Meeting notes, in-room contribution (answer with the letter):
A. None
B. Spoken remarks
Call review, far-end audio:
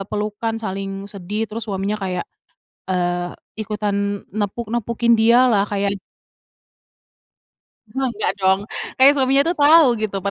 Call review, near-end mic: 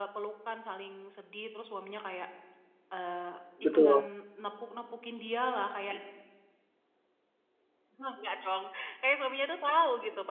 B